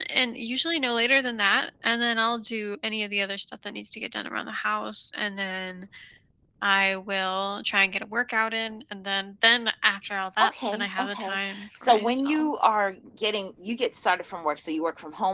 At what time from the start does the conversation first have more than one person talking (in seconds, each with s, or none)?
10.4 s